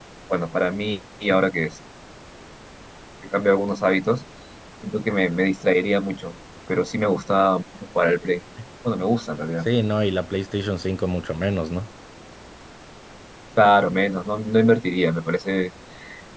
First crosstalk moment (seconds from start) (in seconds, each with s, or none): none